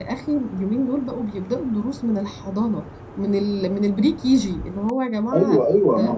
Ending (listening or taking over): taking over